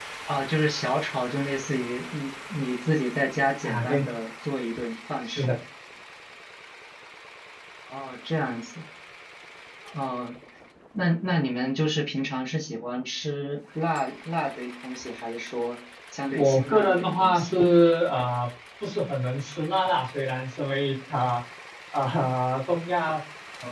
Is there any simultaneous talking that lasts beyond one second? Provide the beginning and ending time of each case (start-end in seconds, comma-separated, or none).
16.3-17.6